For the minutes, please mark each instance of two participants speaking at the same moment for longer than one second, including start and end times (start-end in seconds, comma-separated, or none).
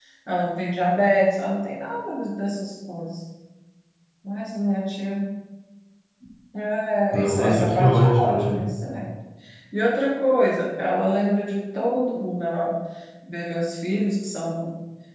7.1-8.6